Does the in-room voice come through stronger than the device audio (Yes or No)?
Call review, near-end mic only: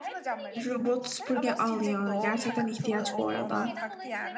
Yes